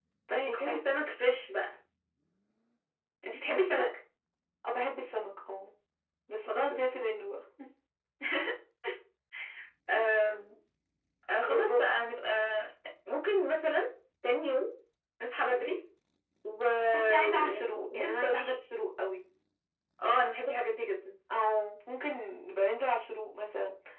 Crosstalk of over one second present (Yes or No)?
Yes